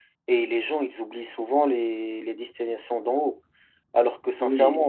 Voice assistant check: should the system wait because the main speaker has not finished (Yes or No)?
Yes